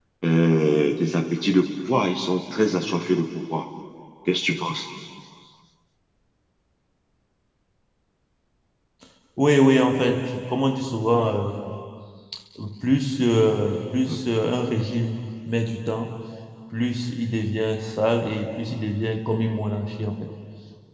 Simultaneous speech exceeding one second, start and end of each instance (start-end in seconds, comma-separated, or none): none